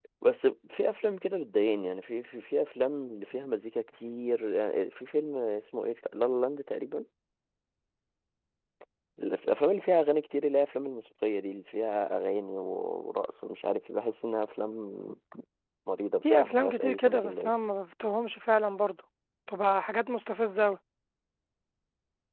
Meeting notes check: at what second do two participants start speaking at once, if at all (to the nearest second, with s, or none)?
16 s